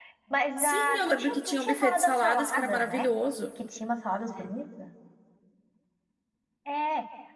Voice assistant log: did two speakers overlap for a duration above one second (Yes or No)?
Yes